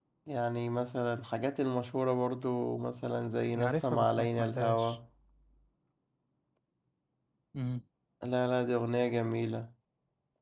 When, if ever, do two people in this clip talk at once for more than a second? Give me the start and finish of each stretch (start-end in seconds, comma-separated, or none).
3.6-5.0